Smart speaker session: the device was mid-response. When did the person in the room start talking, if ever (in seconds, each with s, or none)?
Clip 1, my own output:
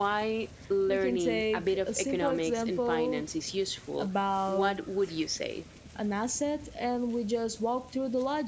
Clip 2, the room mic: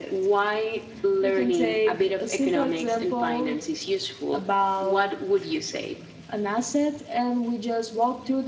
none